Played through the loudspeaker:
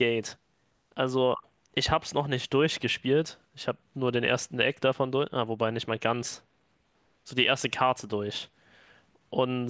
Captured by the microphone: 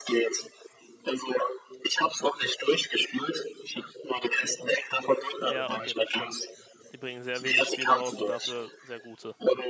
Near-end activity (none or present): present